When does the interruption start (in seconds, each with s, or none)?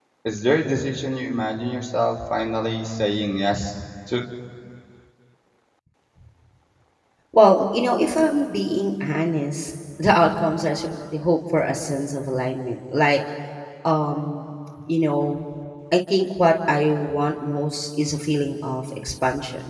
none